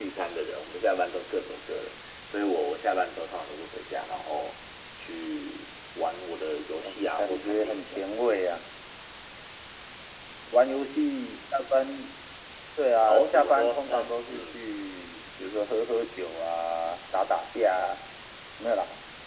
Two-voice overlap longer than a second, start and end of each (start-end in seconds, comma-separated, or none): 6.8-8.0, 13.1-14.6